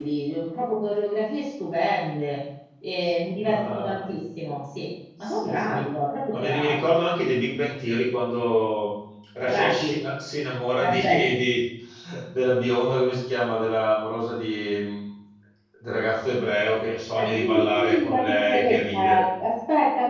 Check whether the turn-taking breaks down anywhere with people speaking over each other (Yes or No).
Yes